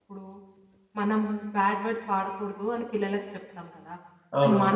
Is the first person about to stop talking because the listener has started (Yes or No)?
No